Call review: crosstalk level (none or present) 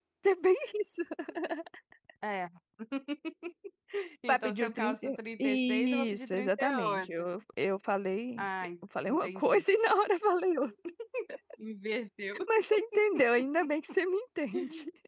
present